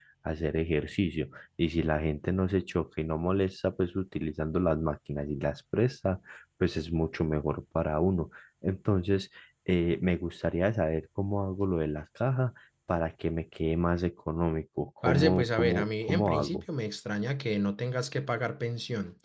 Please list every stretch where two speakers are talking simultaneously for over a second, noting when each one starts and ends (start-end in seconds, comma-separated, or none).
15.0-16.6